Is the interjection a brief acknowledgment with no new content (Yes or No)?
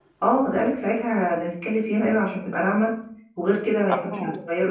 Yes